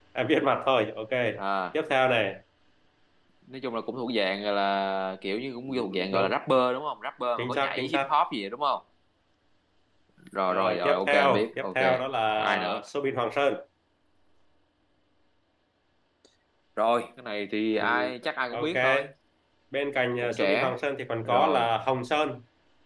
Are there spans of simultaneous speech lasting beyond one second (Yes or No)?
Yes